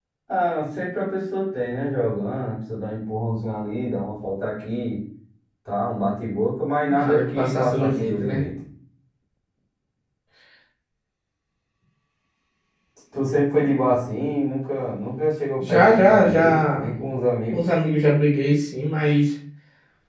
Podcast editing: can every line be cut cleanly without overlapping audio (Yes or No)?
No